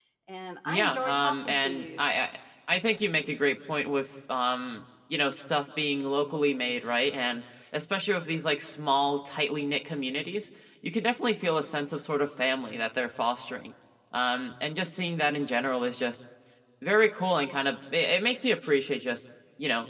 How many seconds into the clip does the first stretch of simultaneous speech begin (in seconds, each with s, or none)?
0.6 s